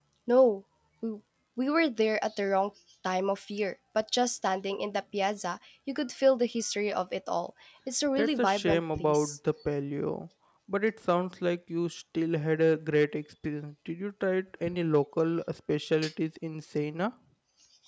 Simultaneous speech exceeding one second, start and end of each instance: 8.2-9.4

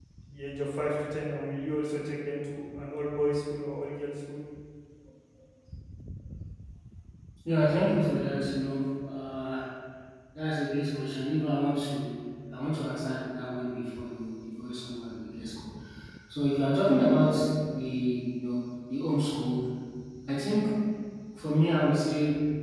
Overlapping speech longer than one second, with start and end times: none

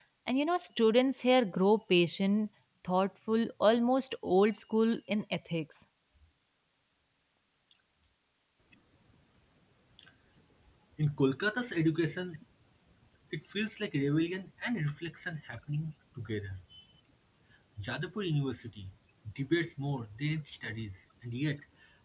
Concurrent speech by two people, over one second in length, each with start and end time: none

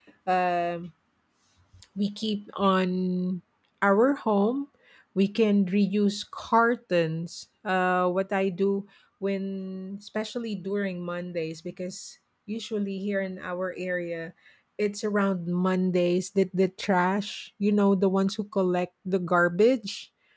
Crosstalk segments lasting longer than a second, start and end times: none

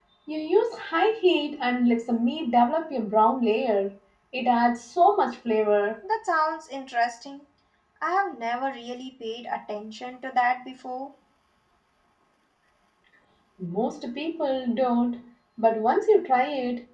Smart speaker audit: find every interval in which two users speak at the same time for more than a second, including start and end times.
none

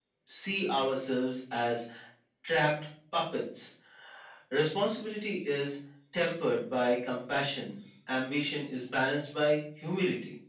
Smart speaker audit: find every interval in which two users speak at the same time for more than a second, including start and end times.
none

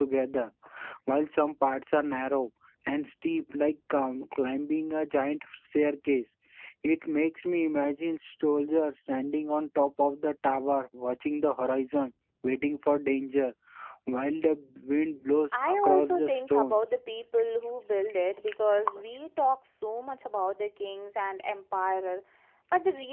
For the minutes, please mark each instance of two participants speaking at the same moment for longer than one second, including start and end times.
15.5-16.9

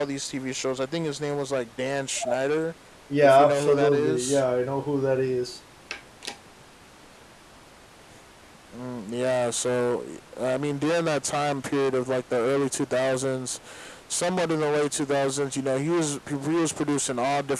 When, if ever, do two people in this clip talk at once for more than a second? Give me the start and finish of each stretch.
3.2-4.4

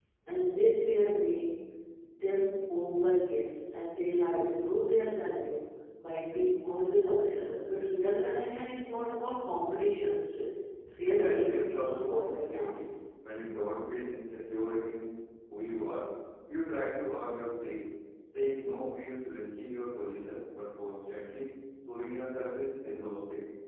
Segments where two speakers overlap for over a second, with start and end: 11.1-12.8

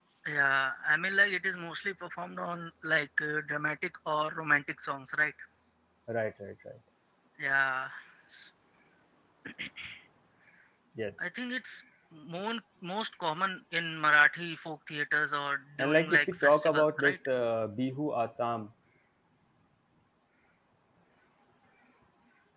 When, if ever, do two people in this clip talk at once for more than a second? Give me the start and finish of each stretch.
15.8-17.2

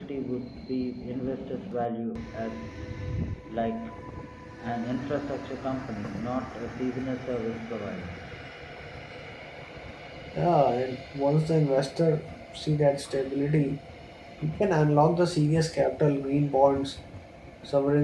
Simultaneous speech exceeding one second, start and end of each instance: none

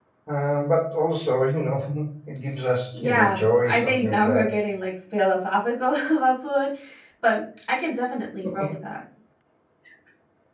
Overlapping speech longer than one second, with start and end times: 2.9-4.5

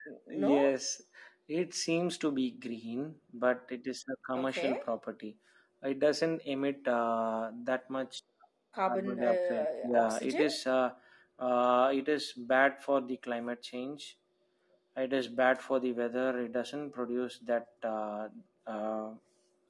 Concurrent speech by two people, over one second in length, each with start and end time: 8.8-10.5

